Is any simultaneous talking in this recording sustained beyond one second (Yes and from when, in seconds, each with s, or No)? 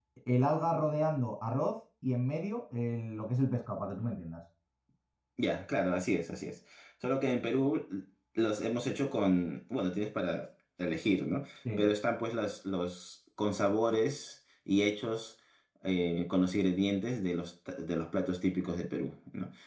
No